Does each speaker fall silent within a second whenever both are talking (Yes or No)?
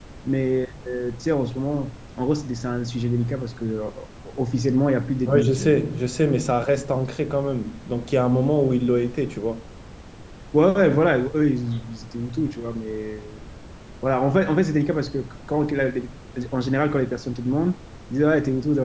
Yes